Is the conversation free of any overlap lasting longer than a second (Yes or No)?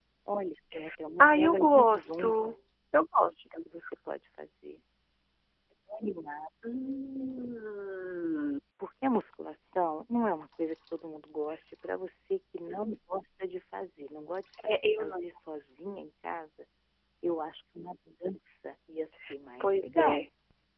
No